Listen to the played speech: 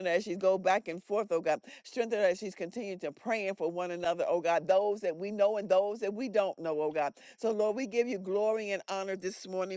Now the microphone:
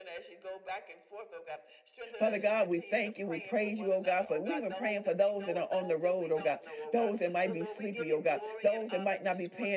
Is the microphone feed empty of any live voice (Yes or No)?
No